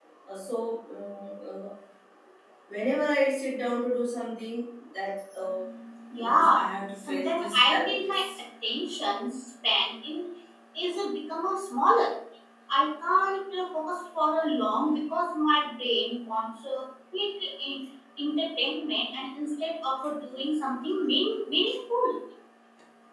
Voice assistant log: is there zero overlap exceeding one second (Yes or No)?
No